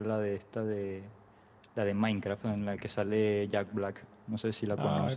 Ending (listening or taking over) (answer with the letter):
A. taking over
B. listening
A